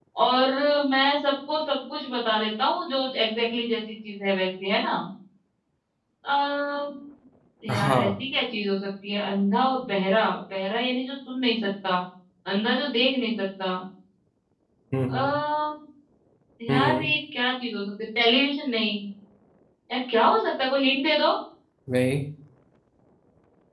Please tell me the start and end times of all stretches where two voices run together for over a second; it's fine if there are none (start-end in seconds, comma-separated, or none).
none